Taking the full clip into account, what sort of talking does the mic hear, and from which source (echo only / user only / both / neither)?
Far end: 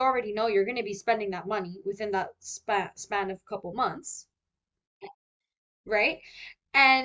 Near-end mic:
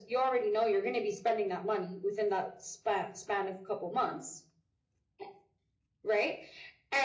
echo only